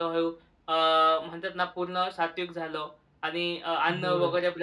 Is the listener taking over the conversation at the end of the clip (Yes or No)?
No